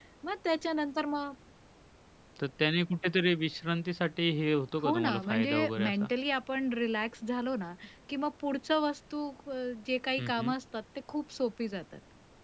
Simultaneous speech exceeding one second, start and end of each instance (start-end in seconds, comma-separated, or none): 4.8-6.1